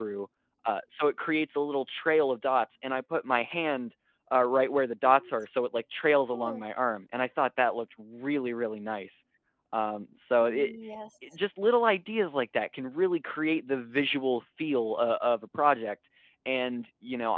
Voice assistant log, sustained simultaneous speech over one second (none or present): none